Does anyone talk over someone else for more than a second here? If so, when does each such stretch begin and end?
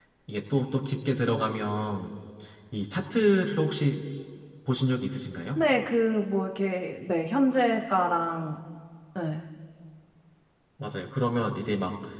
none

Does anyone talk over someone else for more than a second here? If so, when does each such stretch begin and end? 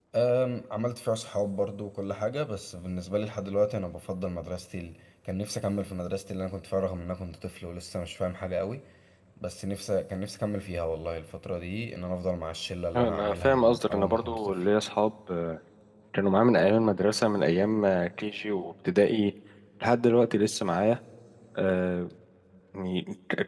13.0-14.5

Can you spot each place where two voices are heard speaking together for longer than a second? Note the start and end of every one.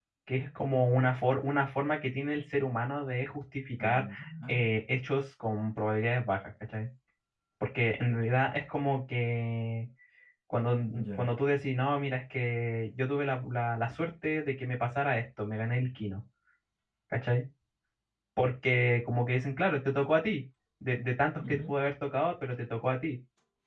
none

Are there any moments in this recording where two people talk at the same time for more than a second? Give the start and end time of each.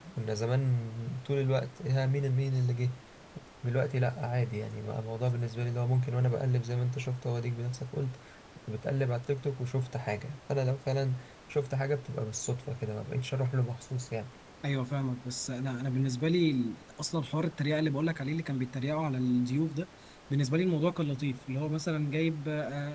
none

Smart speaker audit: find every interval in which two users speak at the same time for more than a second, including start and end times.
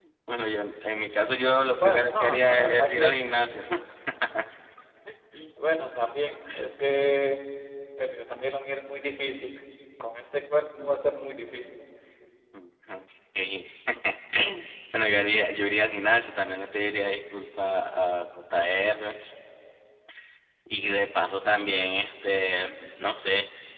1.8-3.1

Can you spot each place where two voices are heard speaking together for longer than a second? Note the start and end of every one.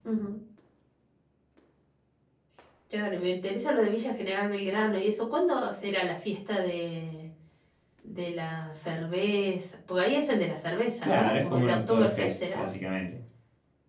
11.0-12.7

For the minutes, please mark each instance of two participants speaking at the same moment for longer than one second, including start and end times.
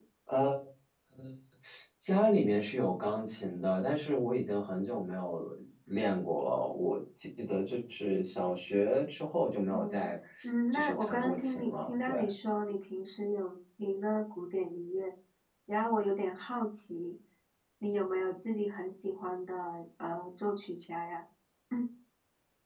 10.7-12.1

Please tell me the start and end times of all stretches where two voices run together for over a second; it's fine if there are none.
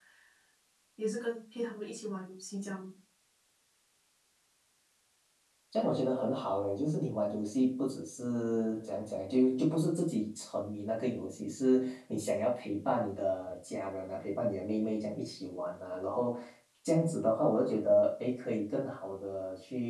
none

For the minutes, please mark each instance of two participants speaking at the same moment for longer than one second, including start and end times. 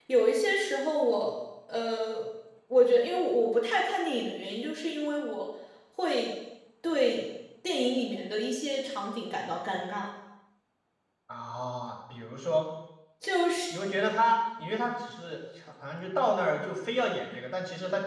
none

